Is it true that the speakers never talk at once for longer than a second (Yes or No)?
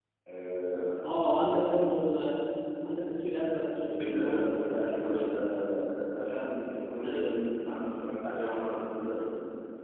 No